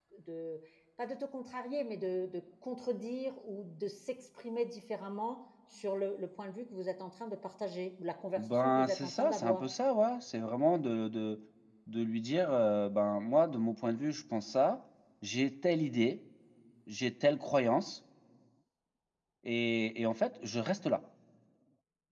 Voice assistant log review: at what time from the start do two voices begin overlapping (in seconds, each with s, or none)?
8.4 s